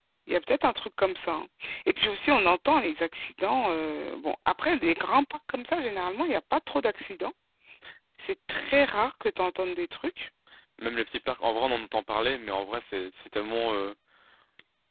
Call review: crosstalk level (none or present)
none